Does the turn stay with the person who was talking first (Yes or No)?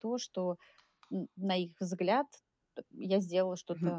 No